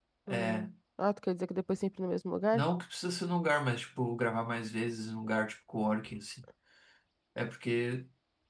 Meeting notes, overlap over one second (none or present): none